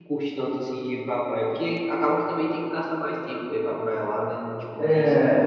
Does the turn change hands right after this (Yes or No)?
Yes